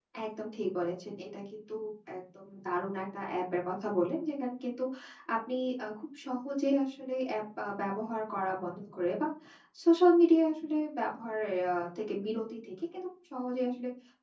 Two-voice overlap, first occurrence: none

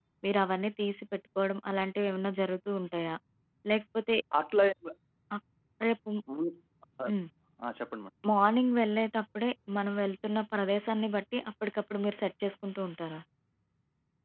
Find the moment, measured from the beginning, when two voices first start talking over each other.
none

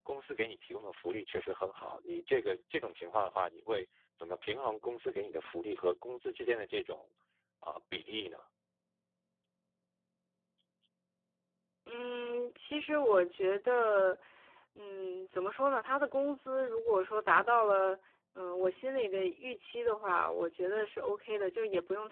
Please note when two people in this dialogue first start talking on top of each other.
none

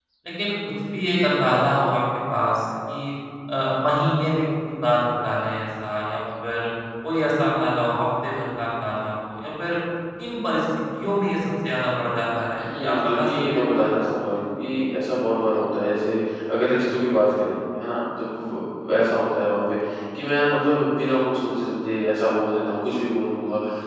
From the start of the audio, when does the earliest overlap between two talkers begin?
12.6 s

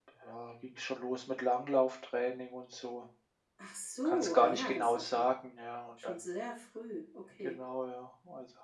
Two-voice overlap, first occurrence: 4.0 s

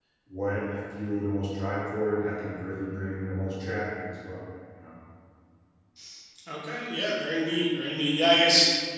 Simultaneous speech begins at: none

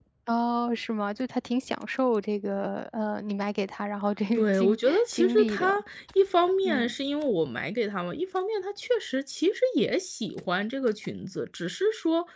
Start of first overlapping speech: 4.4 s

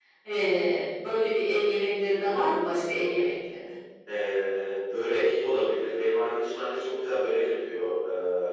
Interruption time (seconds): none

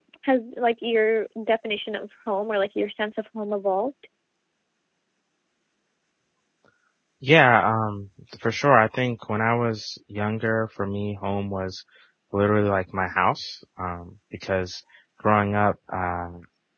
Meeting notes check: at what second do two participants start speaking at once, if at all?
none

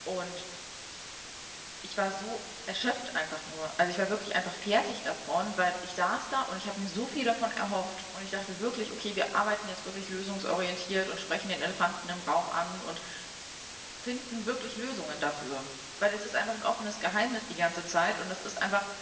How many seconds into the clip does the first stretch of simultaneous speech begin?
none

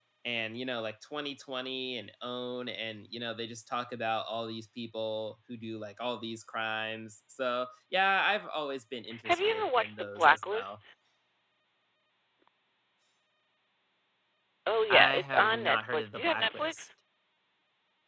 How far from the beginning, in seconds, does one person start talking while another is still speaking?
9.3 s

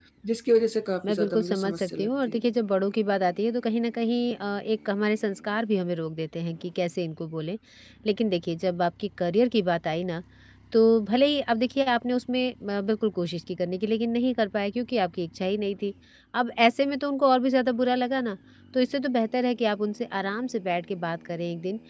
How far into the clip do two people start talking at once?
1.0 s

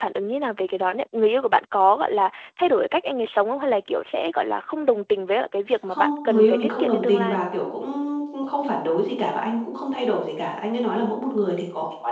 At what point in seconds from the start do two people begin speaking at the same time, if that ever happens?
5.7 s

